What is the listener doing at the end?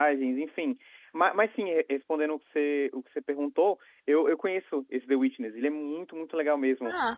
listening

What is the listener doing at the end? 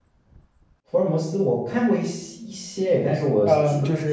taking over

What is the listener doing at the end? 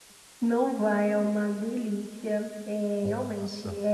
listening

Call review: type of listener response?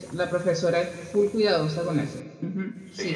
taking over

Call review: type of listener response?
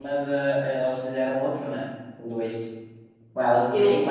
listening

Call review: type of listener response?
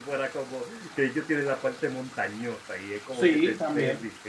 taking over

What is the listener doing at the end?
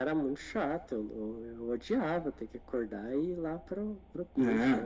taking over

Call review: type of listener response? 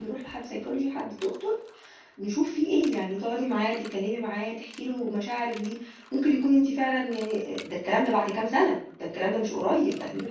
listening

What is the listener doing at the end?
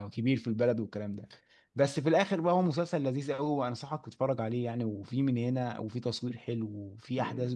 taking over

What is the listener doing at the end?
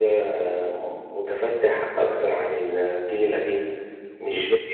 listening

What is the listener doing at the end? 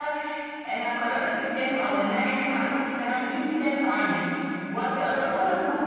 listening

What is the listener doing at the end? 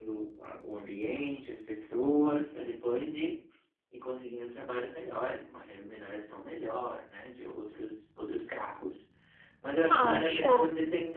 listening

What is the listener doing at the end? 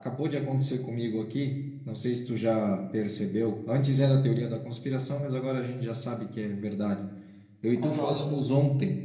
listening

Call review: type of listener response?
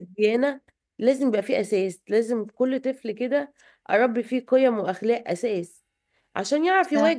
listening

